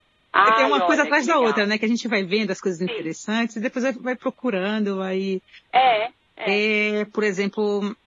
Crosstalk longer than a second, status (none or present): present